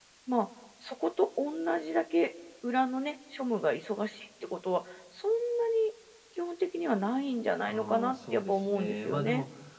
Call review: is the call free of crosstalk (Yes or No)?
No